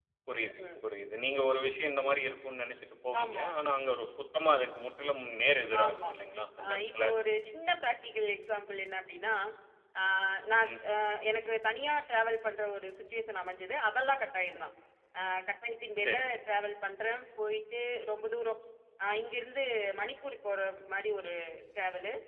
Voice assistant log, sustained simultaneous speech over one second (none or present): none